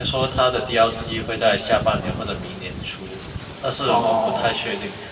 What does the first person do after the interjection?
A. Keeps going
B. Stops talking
A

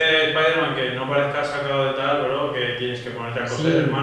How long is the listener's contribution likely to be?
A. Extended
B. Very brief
A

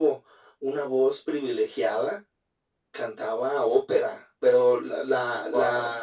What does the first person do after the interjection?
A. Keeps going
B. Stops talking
A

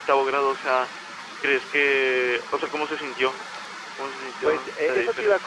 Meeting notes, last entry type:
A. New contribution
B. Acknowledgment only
A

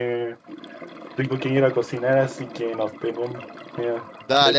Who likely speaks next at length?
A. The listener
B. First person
A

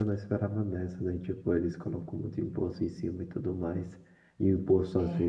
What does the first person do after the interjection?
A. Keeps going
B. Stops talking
A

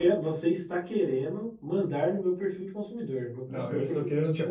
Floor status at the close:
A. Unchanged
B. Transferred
B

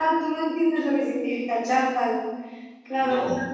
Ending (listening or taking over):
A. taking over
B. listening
B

